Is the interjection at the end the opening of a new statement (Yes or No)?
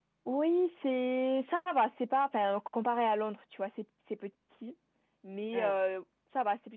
No